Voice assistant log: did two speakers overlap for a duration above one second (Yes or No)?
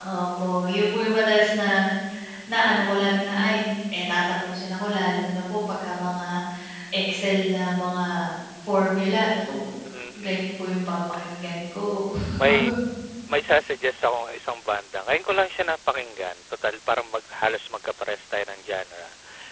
No